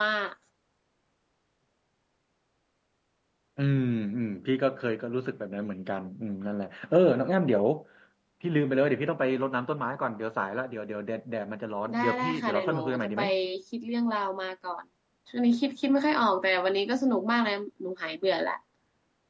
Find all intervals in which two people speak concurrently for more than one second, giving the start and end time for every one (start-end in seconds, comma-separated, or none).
11.9-13.2